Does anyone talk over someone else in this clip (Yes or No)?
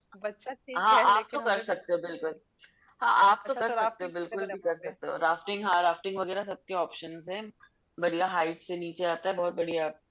Yes